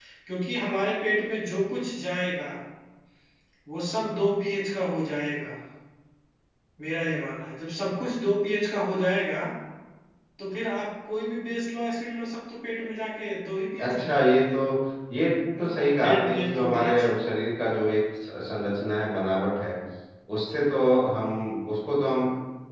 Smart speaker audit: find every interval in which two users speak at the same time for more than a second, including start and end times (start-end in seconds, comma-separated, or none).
15.6-17.1